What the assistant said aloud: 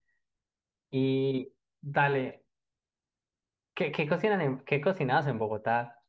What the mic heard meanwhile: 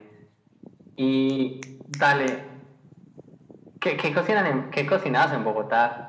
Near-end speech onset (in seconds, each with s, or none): none